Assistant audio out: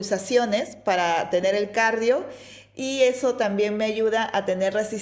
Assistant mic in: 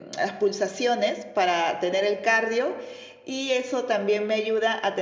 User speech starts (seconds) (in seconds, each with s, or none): none